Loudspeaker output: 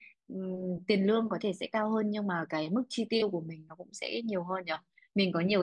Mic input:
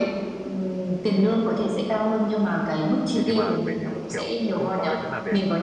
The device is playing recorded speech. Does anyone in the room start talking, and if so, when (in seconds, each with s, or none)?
3.1 s